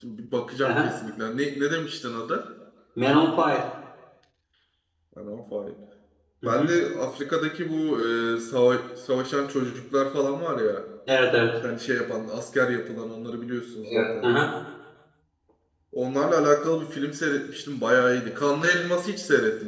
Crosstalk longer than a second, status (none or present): none